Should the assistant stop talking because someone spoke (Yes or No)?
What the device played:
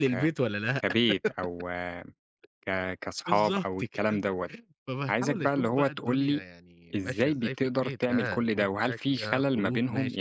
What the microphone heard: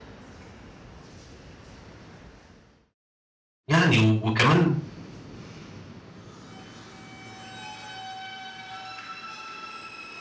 Yes